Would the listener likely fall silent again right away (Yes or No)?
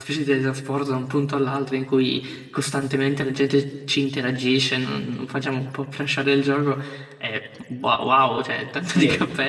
No